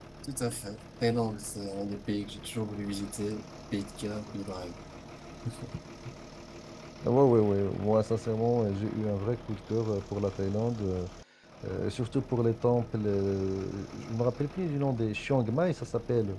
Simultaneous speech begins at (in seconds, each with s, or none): none